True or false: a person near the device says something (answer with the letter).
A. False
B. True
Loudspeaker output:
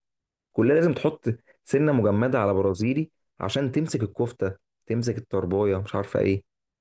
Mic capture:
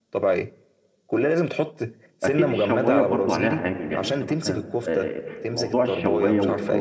B